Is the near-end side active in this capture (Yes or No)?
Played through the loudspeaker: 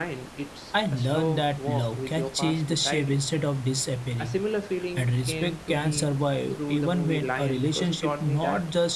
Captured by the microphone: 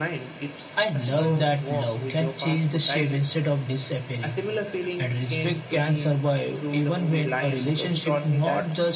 No